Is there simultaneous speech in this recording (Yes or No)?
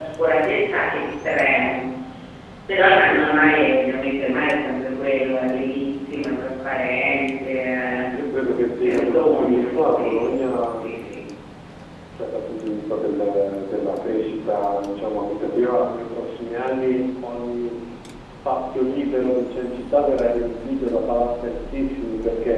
Yes